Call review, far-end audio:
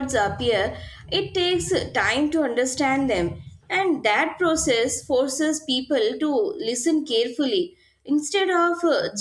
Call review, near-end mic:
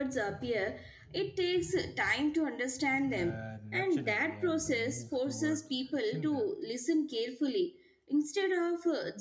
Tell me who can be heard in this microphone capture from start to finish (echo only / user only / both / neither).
both